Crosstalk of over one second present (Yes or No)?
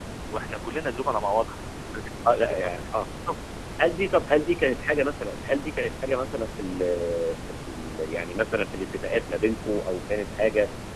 No